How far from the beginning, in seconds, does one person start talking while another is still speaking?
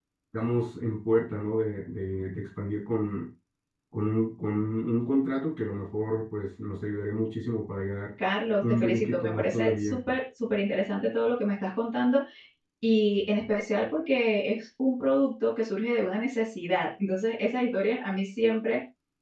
8.6 s

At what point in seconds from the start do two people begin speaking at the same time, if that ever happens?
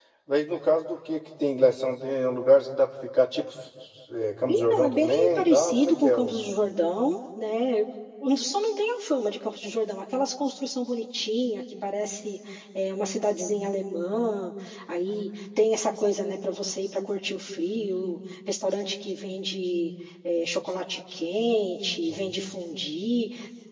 4.5 s

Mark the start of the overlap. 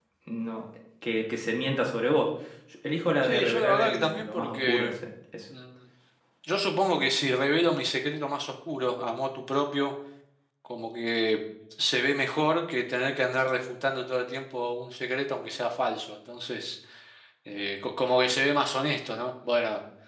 3.2 s

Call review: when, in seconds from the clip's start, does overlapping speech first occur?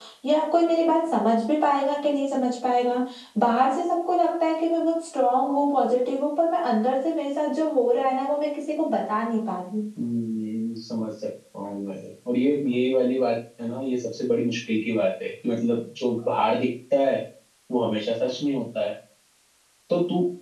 none

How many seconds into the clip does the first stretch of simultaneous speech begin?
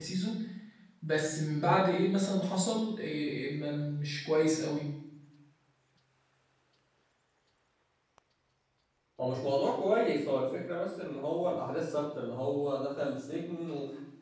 none

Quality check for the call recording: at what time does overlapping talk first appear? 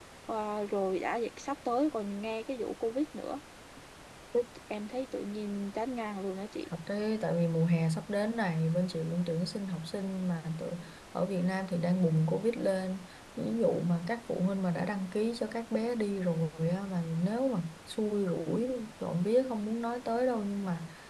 none

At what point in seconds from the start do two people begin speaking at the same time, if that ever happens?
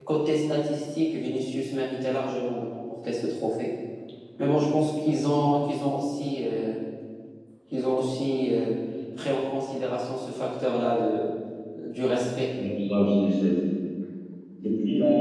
none

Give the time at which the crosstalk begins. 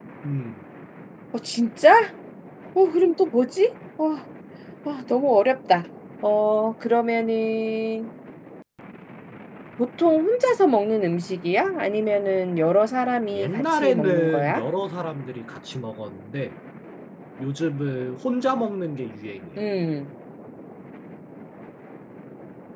13.3 s

